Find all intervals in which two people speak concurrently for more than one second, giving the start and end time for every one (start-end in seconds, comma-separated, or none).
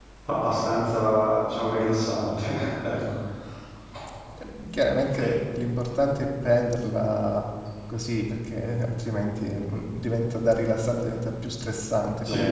none